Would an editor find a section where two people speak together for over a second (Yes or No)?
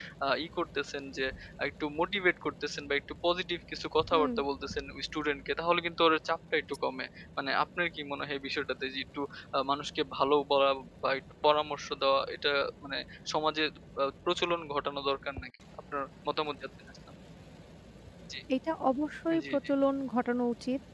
No